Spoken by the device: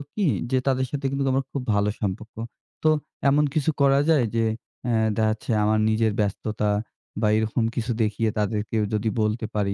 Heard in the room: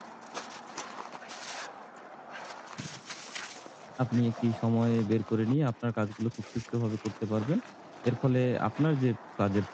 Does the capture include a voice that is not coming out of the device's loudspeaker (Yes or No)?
Yes